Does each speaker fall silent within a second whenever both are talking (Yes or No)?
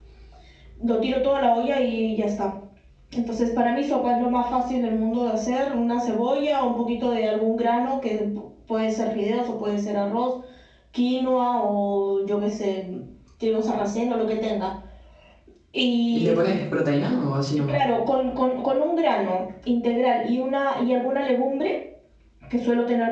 Yes